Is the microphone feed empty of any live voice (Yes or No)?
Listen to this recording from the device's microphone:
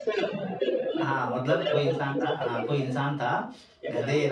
No